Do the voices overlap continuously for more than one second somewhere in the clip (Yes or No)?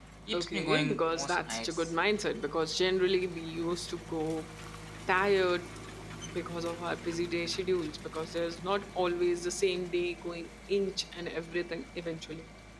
Yes